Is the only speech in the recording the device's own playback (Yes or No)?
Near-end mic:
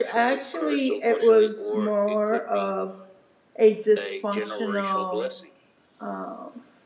No